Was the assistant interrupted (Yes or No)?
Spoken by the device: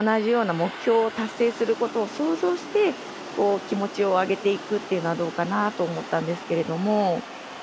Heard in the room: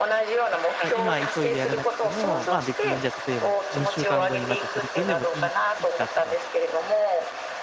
Yes